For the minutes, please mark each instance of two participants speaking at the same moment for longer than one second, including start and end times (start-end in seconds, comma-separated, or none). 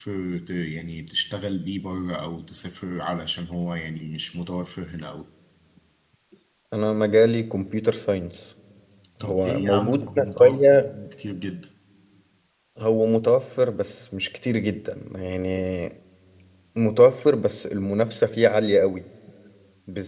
9.2-10.9